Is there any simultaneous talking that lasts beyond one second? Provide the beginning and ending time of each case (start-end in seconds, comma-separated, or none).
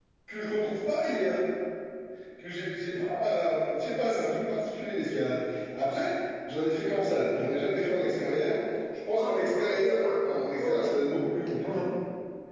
9.2-11.0